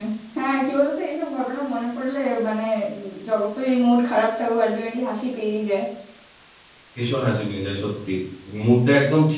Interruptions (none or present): none